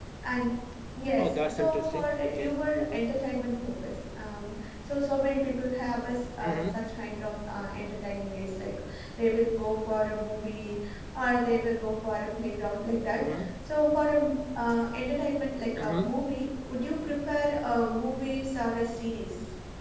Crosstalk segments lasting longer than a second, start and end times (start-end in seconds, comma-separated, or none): 1.2-3.0